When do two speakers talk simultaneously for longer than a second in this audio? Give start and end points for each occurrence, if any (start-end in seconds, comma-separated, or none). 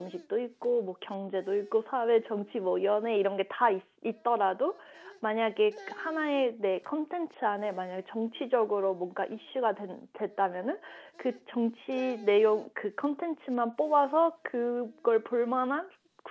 none